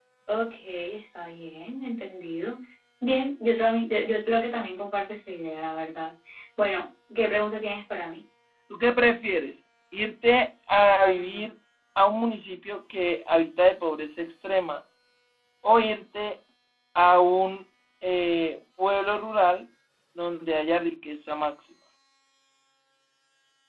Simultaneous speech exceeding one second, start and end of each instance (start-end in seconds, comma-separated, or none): none